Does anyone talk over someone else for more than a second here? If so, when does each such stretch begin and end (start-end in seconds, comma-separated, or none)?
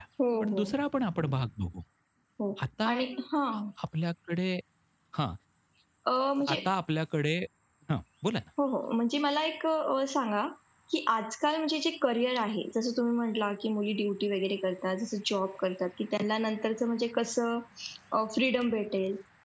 none